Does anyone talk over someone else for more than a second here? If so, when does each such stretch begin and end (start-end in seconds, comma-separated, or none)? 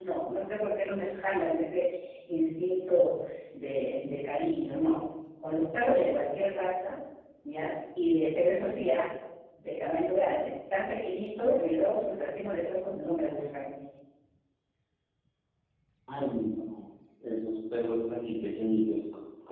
none